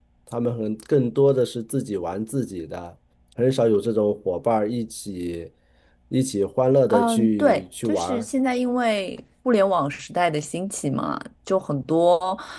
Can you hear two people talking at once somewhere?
Yes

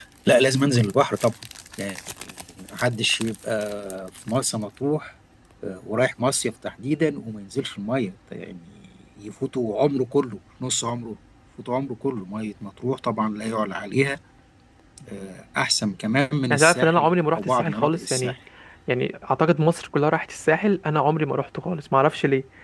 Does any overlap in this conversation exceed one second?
Yes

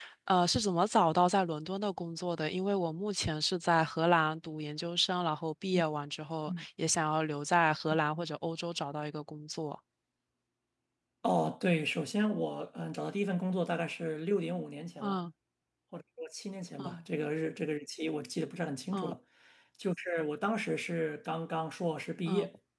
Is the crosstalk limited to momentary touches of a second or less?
Yes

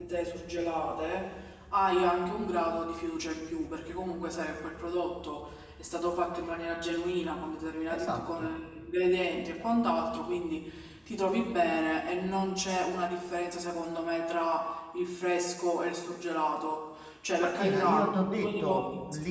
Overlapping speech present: Yes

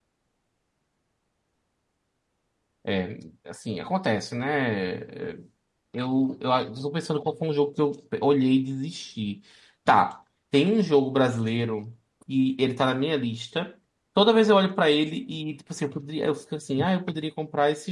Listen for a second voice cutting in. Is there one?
No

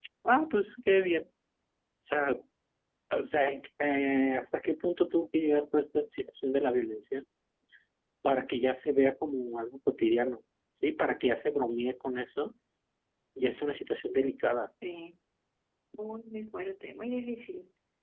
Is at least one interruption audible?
No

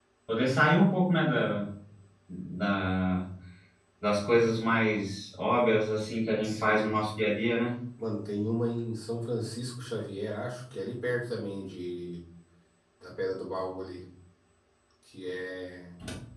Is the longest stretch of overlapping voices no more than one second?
Yes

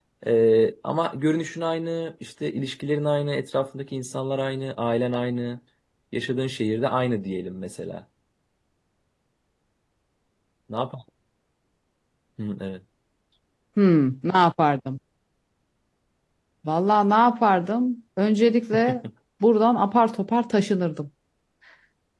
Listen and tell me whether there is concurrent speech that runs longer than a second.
No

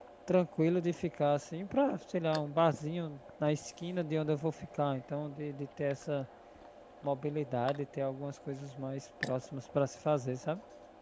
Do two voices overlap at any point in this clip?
No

